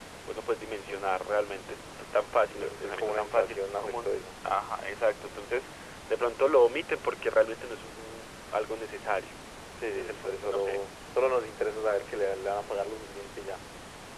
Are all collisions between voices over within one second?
No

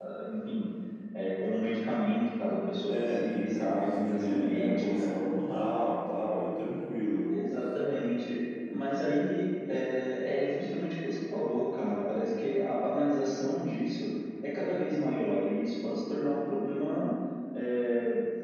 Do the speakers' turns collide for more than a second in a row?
Yes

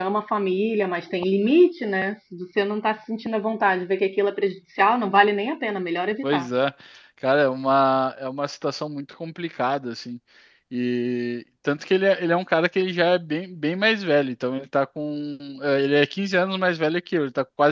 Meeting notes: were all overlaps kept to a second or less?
Yes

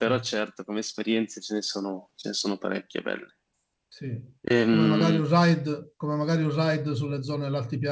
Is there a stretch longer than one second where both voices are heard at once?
No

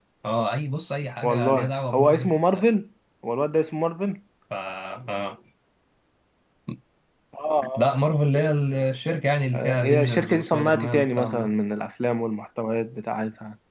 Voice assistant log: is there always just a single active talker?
No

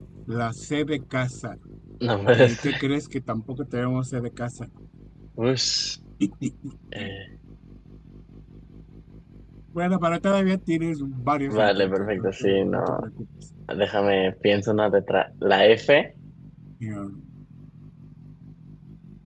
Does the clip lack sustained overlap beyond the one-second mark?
No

